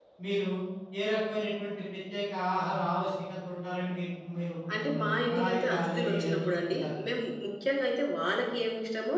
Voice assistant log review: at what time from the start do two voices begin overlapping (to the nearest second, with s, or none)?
5 s